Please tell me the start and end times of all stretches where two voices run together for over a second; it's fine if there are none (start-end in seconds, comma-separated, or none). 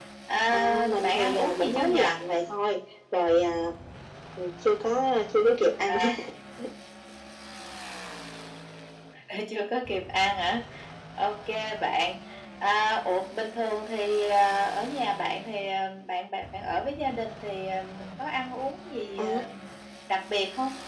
0.5-2.2